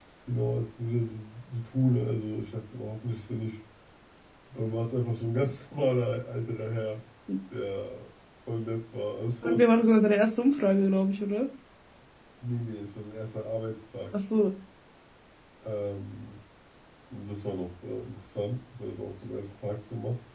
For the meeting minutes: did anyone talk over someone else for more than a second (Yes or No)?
No